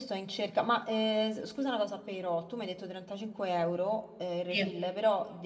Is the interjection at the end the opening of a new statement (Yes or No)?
No